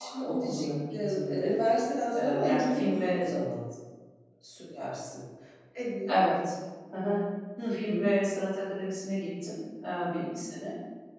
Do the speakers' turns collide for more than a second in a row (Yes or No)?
Yes